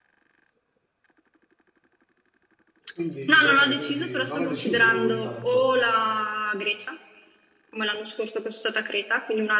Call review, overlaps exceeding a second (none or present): present